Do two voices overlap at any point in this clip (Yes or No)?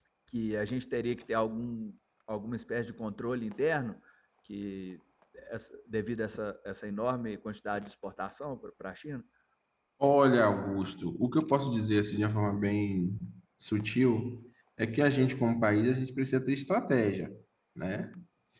No